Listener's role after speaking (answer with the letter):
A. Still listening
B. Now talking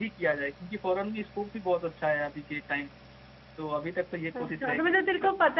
B